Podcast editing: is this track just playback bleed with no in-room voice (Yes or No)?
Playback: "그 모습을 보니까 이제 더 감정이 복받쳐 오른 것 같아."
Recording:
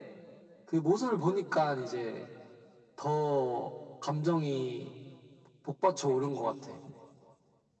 Yes